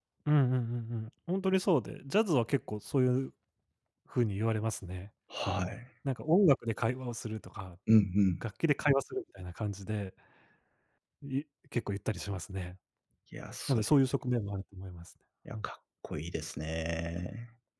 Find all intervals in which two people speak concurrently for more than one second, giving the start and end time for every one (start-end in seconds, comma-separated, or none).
none